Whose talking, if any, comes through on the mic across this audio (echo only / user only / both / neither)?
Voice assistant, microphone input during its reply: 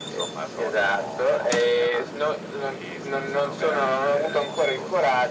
echo only